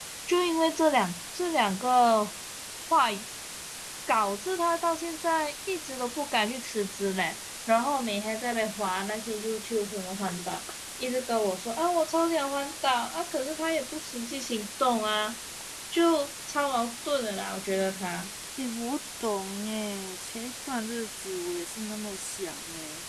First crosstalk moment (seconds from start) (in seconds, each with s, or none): none